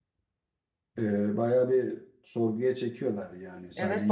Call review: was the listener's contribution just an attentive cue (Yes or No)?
No